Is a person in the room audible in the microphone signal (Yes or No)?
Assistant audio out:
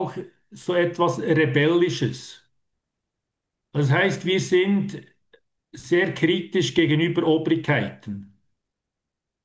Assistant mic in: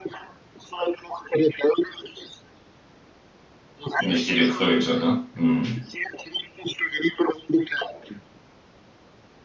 Yes